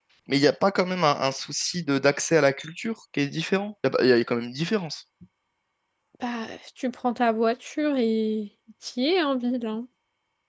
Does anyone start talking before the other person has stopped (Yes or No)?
No